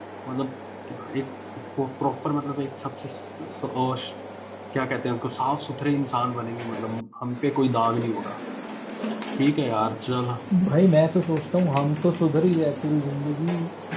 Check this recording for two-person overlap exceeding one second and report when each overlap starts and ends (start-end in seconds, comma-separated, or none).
none